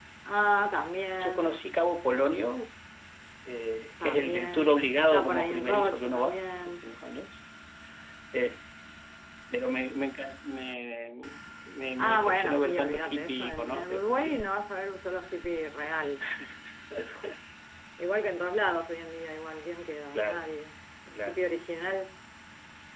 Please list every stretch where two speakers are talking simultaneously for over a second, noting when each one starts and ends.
4.0-6.9, 12.0-14.6

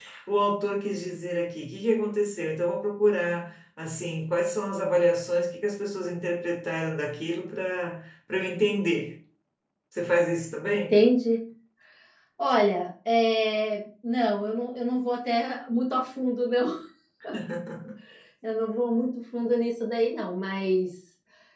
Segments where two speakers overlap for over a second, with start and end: none

